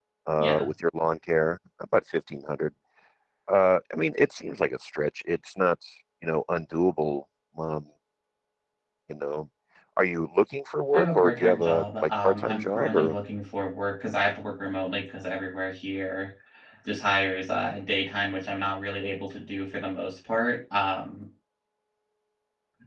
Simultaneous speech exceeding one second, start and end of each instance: 10.9-13.1

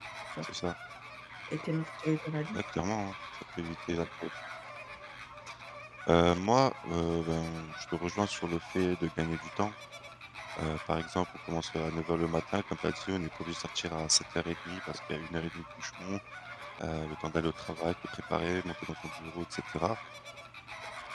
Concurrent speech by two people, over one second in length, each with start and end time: none

